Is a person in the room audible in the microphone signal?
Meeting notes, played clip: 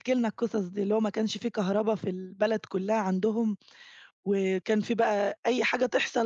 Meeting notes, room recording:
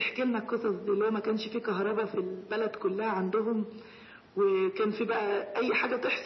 No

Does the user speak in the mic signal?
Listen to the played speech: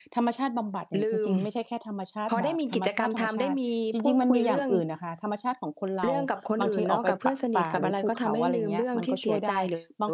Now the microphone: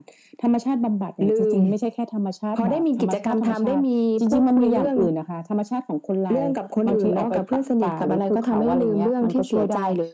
No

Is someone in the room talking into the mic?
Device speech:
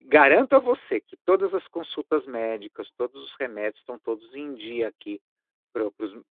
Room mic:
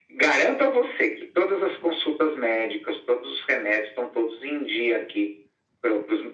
No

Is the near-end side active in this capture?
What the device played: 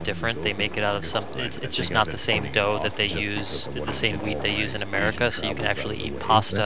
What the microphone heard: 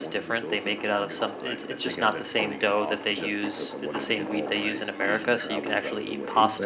No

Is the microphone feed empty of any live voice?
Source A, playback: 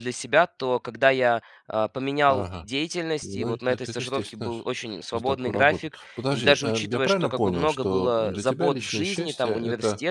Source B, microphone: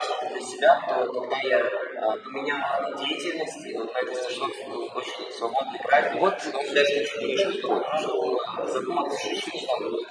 No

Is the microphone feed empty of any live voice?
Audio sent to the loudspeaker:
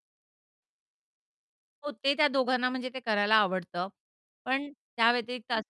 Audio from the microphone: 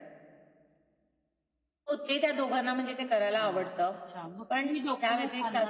No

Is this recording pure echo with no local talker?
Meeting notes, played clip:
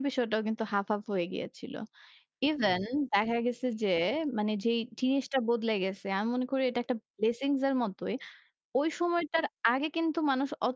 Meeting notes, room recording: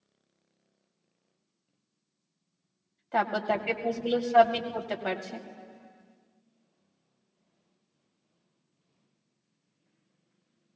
No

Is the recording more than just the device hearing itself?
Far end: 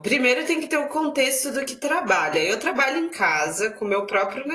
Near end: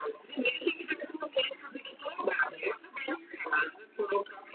No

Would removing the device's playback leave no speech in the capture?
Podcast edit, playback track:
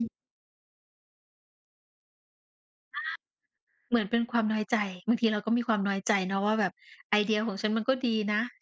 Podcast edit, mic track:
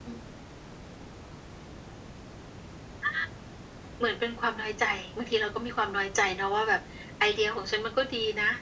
Yes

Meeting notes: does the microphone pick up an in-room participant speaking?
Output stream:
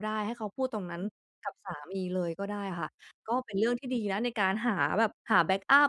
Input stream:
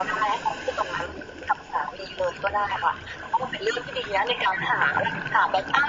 No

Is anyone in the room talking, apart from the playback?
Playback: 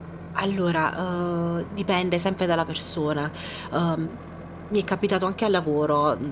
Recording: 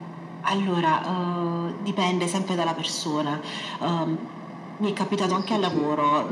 Yes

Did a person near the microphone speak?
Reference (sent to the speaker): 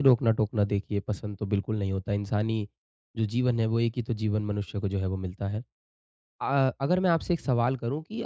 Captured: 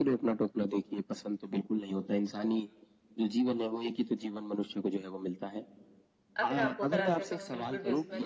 Yes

